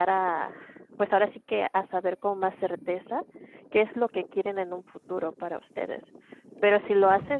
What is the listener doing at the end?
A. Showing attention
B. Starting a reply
A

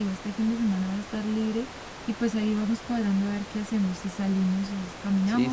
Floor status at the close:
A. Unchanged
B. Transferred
B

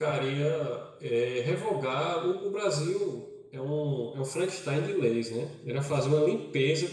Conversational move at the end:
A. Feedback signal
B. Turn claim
A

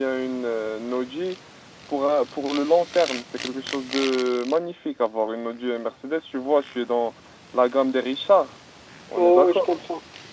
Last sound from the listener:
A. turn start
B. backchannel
A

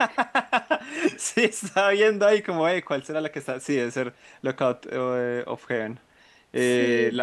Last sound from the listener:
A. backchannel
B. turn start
A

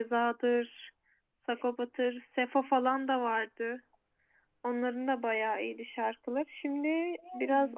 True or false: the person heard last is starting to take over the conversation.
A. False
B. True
A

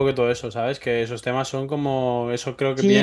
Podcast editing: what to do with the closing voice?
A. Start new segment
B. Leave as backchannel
A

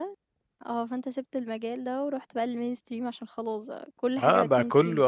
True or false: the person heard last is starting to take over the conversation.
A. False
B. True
B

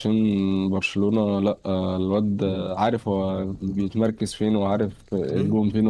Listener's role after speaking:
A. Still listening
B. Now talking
B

